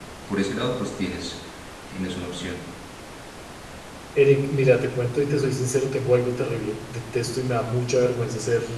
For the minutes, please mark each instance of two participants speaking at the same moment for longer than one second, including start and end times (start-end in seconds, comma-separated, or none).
none